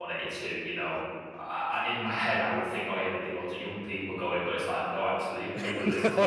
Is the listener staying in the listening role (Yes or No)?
Yes